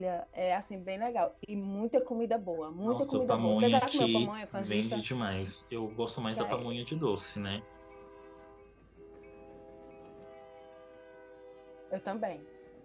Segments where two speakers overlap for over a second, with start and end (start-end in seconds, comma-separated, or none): 2.8-5.0